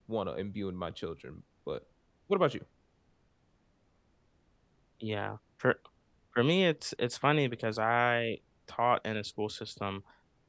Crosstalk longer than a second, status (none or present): none